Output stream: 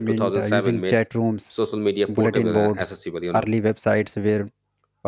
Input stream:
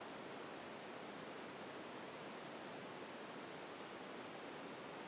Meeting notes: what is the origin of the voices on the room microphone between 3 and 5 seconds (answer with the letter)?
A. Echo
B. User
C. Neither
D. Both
C